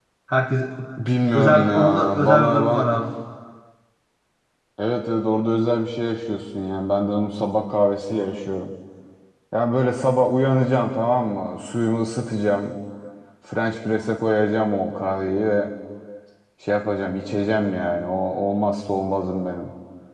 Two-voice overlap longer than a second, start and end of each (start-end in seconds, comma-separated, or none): 1.3-3.0